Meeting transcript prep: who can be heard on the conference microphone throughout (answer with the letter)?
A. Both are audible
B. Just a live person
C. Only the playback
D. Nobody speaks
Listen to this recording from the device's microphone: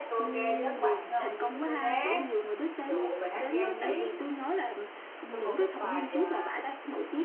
A